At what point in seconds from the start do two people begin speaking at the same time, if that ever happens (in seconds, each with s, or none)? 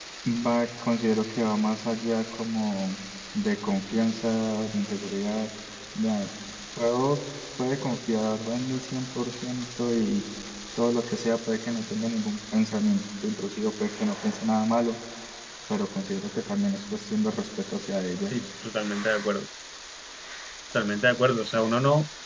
none